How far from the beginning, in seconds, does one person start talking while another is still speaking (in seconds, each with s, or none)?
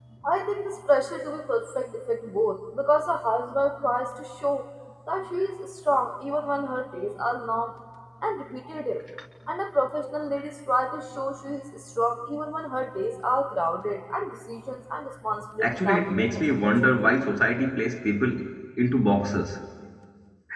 15.6 s